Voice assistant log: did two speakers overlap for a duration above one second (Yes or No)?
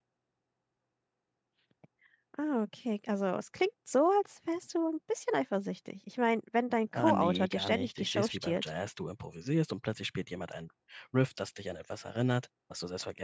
Yes